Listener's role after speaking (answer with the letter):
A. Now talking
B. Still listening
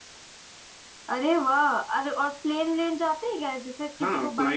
A